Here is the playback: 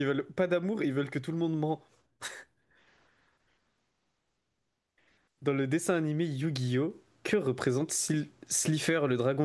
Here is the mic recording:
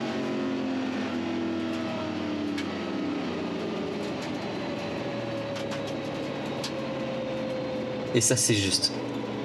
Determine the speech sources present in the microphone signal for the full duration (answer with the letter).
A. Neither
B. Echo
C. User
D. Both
C